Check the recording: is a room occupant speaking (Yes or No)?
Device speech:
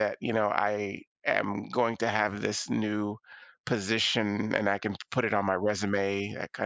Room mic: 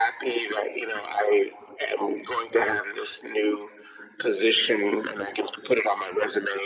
No